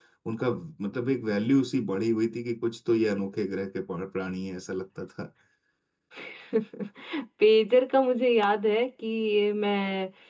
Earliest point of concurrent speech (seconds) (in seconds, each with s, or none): none